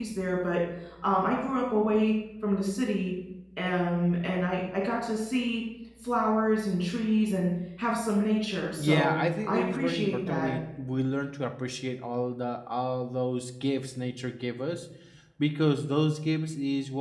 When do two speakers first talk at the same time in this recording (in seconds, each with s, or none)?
8.8 s